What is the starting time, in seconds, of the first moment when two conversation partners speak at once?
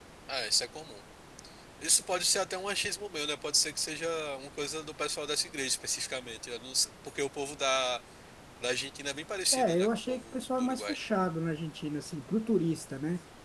9.5 s

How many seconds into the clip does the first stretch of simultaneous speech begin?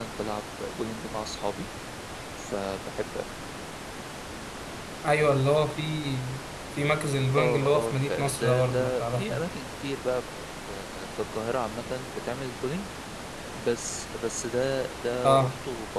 7.3 s

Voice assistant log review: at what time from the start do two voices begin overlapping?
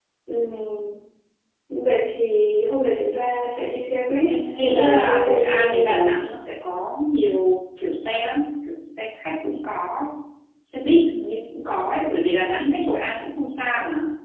4.3 s

